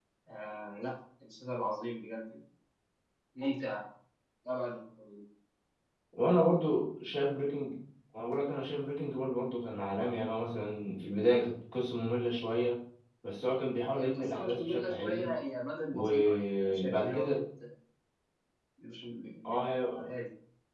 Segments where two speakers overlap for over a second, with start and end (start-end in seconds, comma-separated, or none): 13.9-15.3, 15.9-17.4